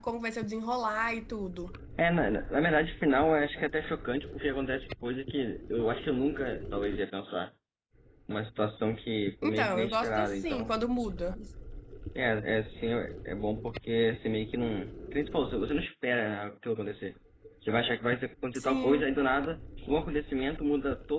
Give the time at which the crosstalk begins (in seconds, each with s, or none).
9.4 s